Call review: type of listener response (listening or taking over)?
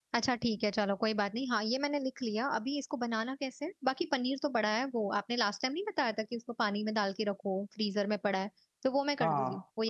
taking over